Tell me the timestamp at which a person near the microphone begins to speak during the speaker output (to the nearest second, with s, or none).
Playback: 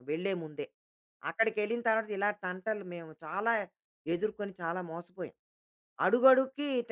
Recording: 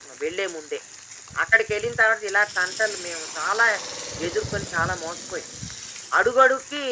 none